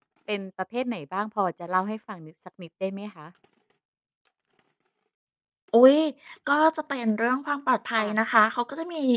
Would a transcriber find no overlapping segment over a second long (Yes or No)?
Yes